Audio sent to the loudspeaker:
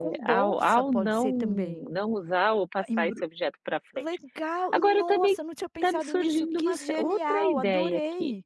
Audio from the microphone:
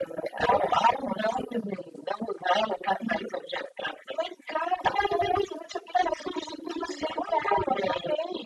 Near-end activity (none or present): none